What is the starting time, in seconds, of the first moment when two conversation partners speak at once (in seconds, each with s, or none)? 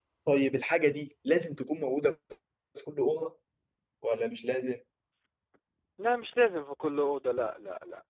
none